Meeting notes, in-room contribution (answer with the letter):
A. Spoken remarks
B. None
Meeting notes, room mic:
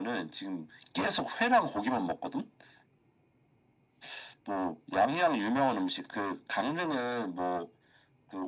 B